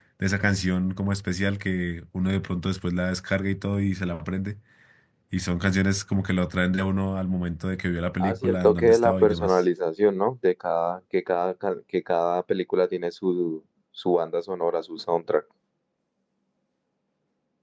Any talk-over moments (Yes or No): Yes